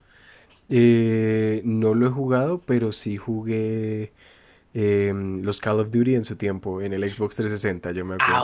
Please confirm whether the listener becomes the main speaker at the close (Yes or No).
Yes